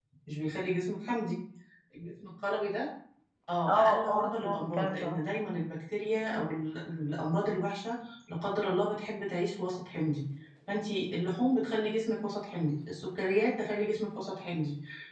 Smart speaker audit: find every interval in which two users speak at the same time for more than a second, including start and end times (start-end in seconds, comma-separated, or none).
3.7-5.2